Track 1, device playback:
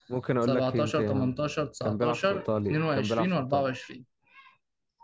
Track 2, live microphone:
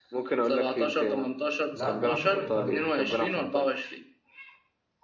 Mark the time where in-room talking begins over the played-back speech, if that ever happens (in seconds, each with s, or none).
1.7 s